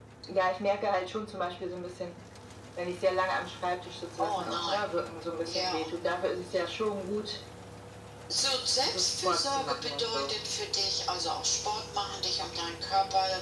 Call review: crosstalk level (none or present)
present